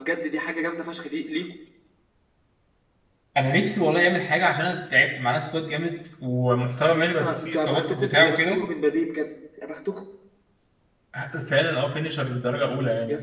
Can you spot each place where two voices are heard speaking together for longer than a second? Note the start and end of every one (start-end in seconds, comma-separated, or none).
7.0-8.6